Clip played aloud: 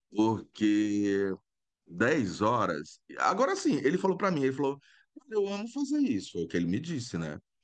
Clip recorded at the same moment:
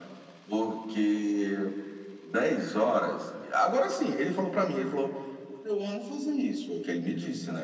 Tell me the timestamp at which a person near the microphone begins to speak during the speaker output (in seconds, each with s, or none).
none